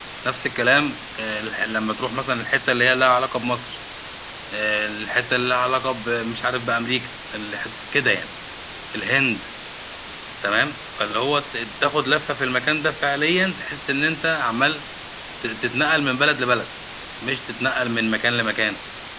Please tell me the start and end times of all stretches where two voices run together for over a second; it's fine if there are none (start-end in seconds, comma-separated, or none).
none